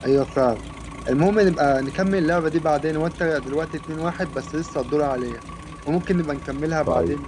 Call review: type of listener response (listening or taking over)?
taking over